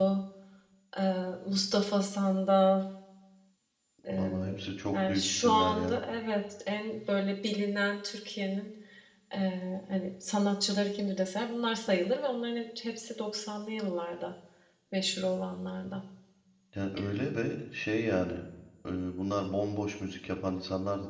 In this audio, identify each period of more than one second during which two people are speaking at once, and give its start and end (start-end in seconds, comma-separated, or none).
4.1-6.0